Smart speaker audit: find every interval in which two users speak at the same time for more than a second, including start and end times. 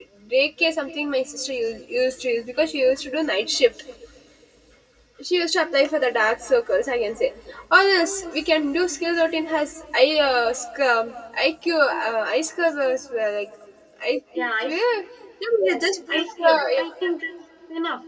15.6-16.8

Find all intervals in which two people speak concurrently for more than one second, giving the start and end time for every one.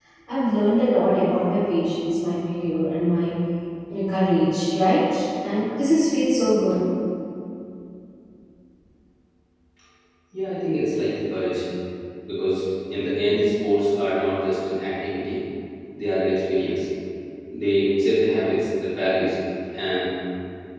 none

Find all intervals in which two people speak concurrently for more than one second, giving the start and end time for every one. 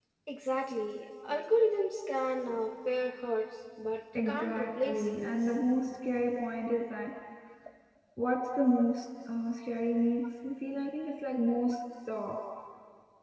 4.3-5.5

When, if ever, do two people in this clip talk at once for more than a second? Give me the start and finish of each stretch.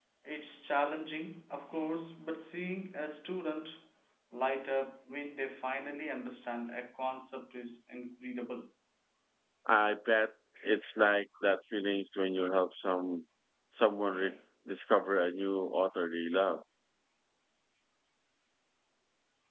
none

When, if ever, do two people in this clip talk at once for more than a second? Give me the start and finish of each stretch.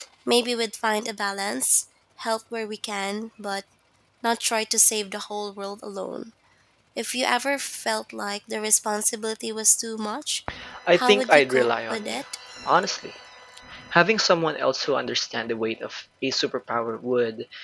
11.0-12.2

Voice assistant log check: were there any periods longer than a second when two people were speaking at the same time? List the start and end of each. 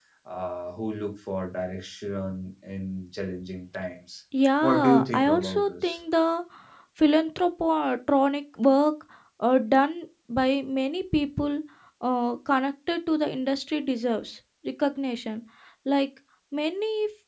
4.6-6.0

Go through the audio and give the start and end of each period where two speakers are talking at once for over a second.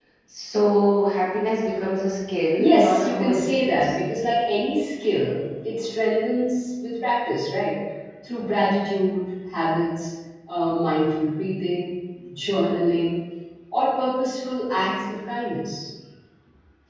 2.6-3.9

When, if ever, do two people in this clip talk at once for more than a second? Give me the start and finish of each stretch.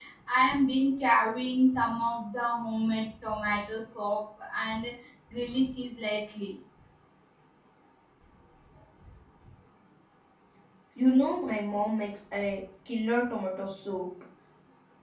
none

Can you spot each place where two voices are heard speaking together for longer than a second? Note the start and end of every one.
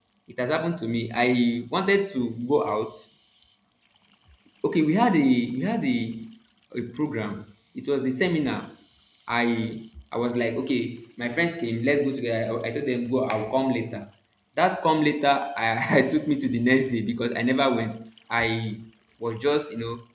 none

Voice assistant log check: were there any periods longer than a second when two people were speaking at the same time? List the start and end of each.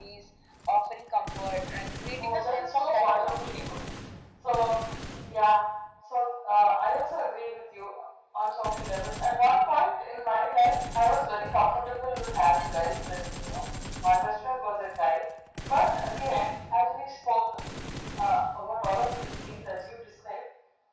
2.2-3.7

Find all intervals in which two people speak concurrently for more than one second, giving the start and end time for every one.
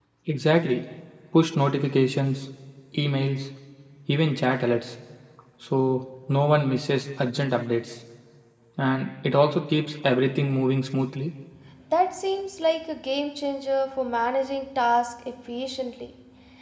none

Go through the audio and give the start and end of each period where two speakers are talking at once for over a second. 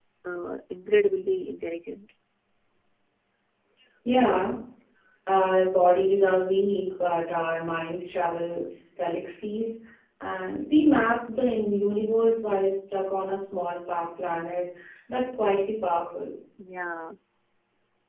none

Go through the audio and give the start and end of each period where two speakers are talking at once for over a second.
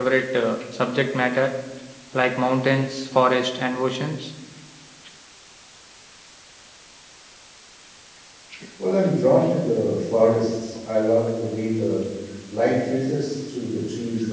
none

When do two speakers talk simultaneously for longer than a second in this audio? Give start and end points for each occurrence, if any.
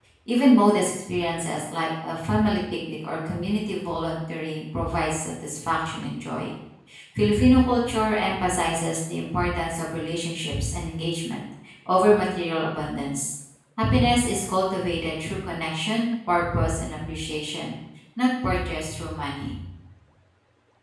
none

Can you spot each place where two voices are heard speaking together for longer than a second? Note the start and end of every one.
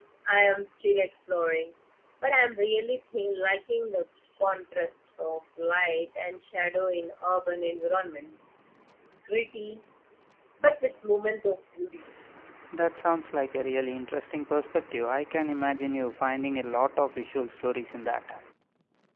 none

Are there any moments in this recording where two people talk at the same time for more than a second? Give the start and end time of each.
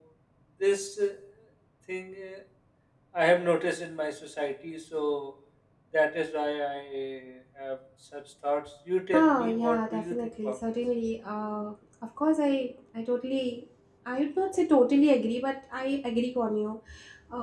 9.1-10.6

